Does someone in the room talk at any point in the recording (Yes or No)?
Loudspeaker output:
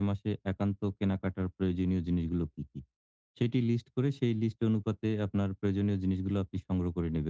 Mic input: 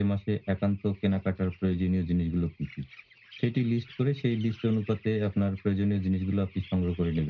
No